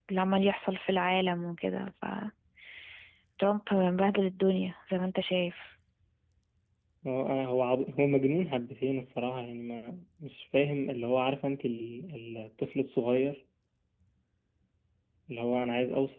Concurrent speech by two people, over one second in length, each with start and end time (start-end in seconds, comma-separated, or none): none